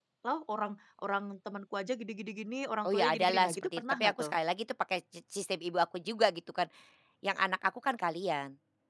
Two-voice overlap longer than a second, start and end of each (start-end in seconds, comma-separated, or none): 2.9-4.3